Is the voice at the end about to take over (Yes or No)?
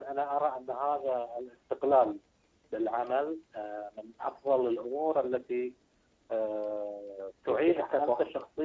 No